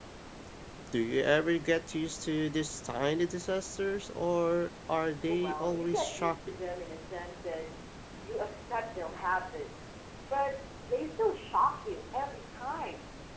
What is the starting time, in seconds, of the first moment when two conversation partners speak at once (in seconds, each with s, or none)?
5.3 s